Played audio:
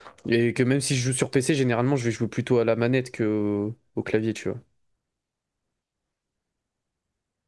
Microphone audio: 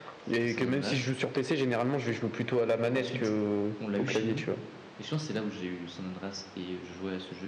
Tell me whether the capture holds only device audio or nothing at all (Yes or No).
No